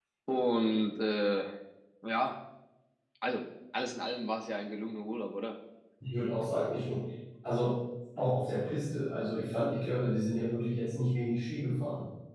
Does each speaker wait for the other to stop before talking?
Yes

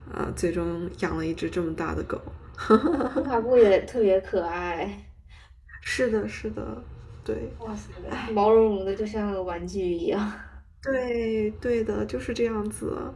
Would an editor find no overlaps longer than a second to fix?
Yes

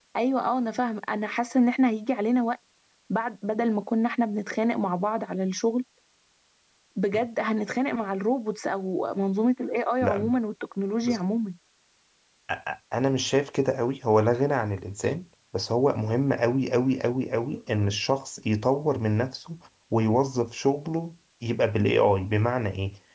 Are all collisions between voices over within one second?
Yes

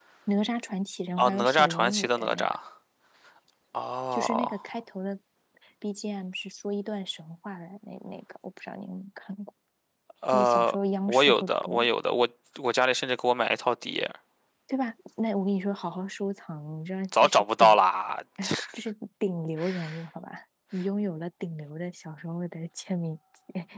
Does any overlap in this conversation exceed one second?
Yes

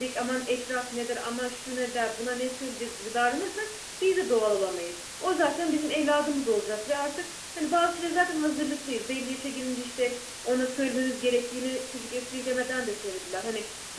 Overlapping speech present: No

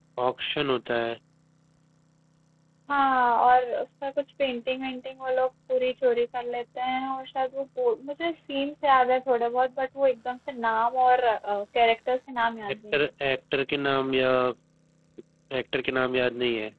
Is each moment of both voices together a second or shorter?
Yes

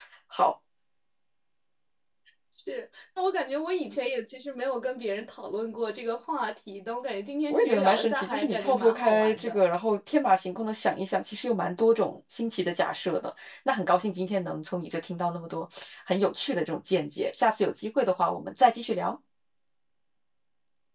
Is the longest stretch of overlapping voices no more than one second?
No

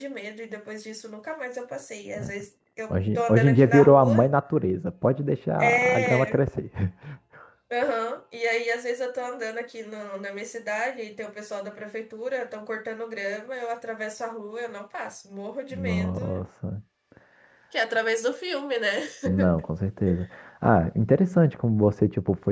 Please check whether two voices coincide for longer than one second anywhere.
Yes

